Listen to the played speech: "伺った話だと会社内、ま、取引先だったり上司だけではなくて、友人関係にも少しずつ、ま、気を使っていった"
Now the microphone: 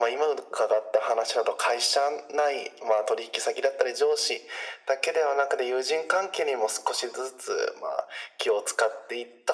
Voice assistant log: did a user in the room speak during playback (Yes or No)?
No